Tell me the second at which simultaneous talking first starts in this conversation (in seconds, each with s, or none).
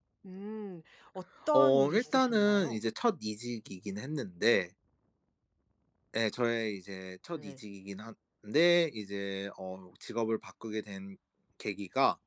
1.5 s